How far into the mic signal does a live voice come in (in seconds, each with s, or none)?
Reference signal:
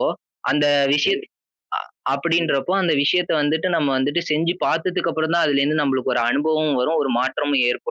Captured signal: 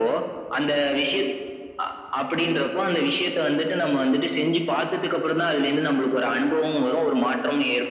none